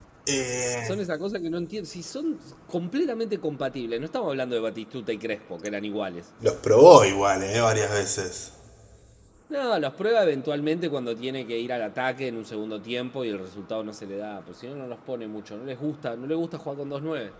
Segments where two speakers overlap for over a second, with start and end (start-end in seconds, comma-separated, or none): none